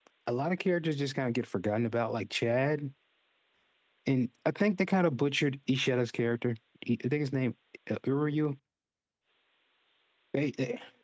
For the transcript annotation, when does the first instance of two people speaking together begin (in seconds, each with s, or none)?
none